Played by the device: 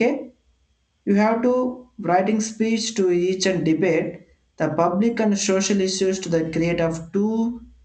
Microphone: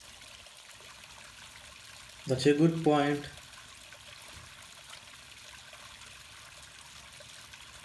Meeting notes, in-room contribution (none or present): present